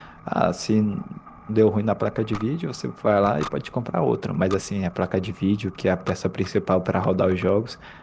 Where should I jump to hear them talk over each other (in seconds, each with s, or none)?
none